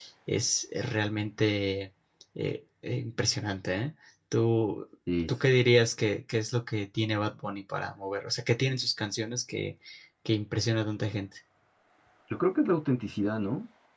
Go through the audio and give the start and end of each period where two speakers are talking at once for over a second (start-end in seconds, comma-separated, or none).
none